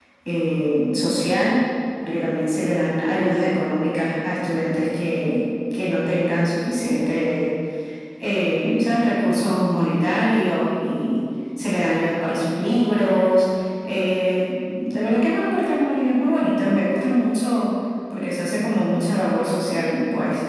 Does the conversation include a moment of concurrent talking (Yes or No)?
No